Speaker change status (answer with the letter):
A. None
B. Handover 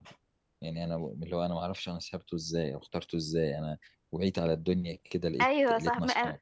B